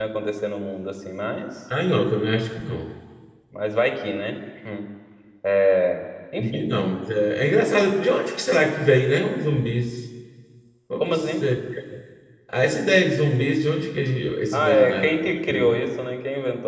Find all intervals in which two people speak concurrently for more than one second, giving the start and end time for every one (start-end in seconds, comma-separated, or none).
14.5-15.8